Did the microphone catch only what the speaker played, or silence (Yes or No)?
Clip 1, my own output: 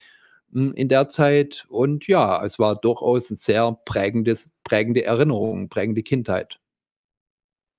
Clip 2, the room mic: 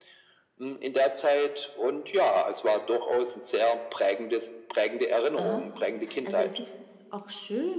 No